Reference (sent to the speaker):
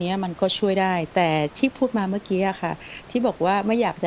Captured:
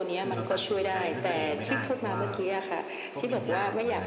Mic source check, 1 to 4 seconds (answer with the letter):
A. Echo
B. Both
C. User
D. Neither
B